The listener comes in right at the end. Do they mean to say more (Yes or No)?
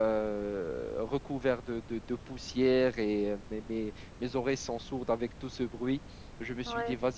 No